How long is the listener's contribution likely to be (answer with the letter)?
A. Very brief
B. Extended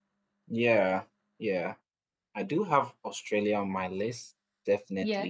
A